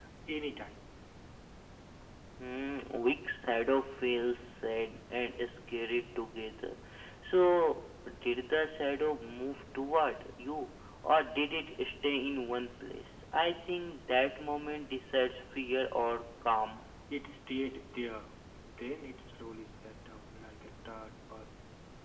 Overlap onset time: none

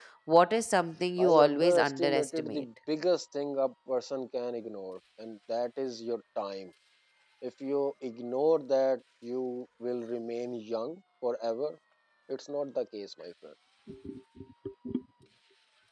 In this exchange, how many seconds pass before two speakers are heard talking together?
1.2 s

